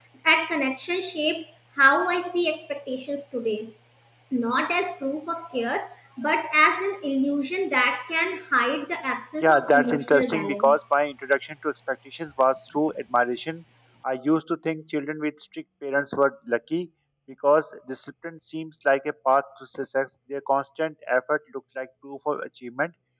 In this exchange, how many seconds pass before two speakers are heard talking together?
9 s

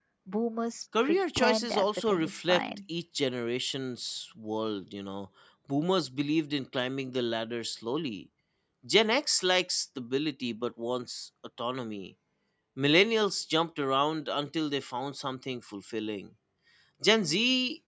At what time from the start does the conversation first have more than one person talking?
1 s

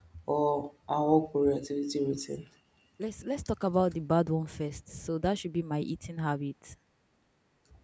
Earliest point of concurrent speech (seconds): none

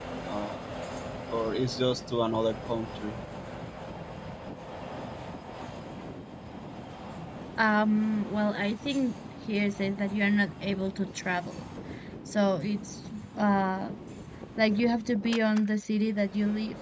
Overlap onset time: none

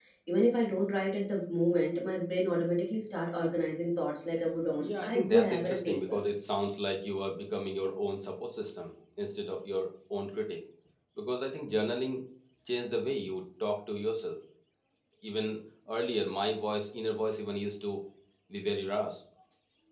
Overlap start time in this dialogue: 5 s

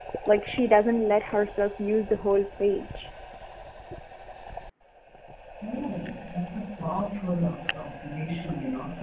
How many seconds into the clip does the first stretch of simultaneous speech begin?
none

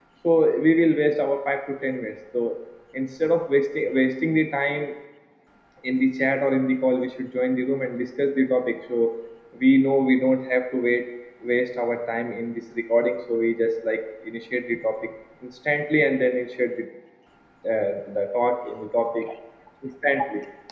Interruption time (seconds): none

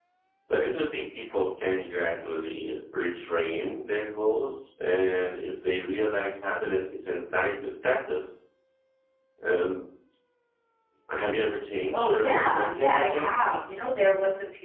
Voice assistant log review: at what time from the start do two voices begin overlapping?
12 s

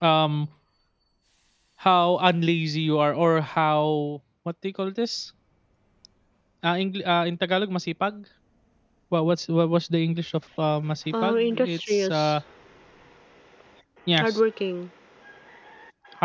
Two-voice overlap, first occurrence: 11 s

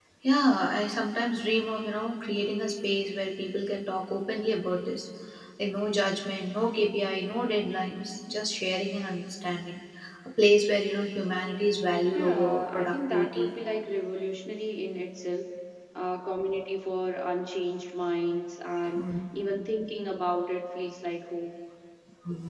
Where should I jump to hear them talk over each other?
12 s

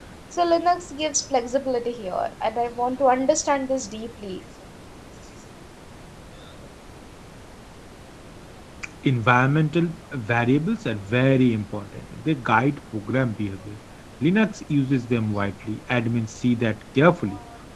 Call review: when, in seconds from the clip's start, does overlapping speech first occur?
none

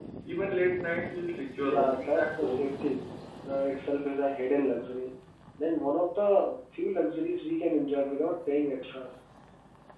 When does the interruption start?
2 s

